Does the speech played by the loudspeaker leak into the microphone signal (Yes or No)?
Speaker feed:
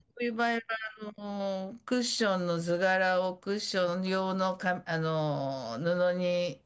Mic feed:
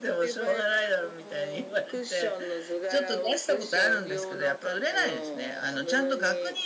Yes